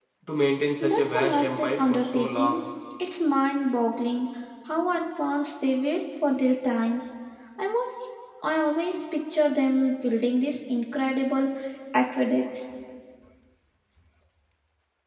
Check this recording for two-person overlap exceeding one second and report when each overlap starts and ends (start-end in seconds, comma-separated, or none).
0.8-2.6